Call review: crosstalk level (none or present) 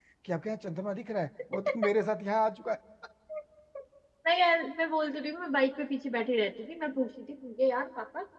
none